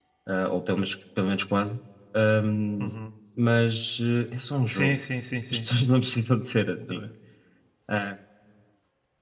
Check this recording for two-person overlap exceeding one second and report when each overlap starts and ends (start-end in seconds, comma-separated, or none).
none